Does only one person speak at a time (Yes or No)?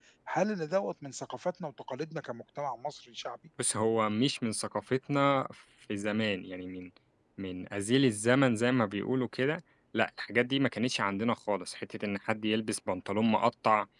Yes